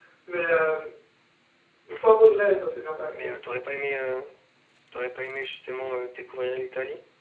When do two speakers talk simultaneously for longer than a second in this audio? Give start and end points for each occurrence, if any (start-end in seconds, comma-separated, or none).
none